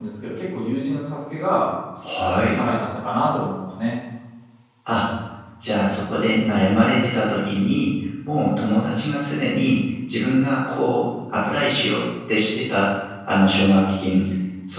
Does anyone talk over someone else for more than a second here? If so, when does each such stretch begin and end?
none

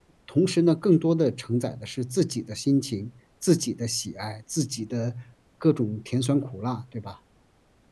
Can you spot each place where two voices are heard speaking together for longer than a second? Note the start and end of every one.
none

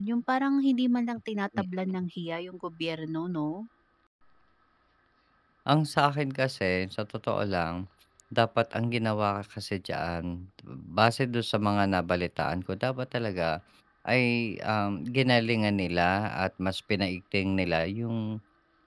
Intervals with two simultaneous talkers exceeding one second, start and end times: none

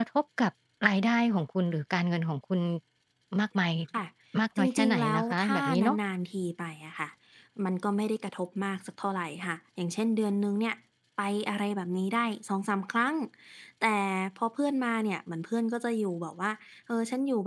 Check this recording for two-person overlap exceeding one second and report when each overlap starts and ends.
4.6-6.0

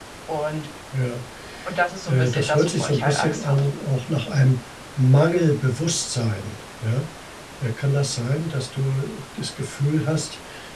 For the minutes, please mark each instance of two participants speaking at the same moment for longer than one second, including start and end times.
2.0-3.6

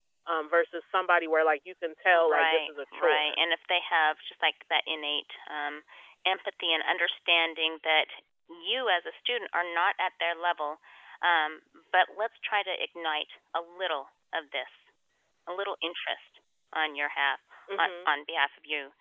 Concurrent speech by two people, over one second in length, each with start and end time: 2.1-3.3

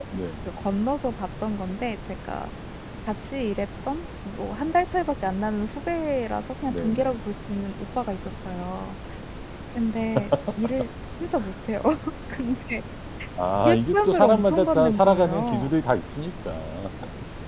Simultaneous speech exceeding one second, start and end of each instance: 13.7-15.7

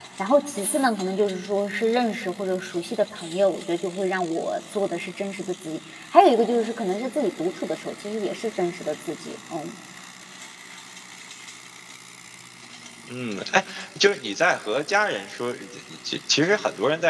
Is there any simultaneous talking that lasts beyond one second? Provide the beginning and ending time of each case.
none

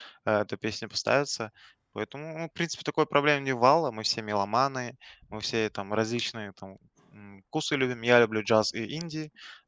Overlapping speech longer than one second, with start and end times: none

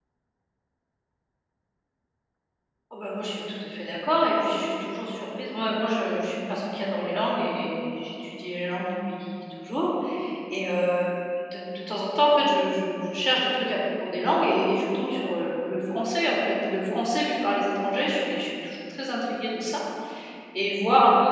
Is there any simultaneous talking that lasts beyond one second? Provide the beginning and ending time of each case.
none

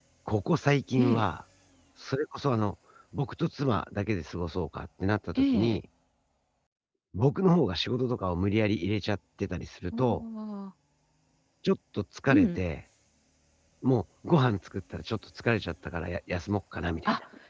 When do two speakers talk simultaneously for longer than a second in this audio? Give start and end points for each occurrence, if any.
none

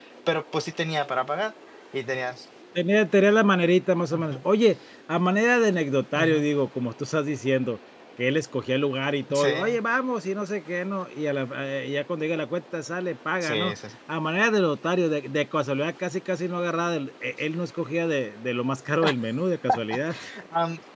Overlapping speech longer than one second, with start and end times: none

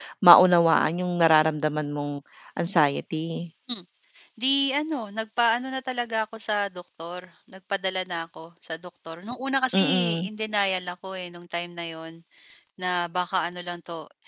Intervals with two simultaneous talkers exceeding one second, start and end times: none

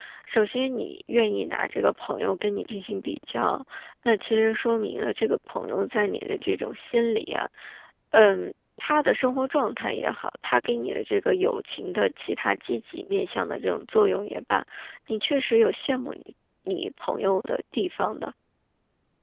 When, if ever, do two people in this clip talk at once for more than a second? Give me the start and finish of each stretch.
none

